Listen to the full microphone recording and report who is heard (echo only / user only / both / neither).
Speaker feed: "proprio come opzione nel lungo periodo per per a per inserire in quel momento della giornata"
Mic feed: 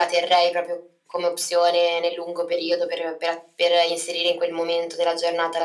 echo only